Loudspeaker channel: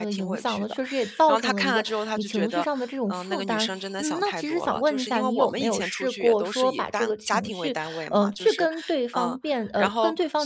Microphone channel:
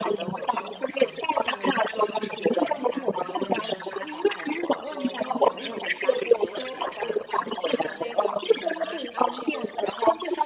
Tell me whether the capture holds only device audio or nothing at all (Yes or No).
No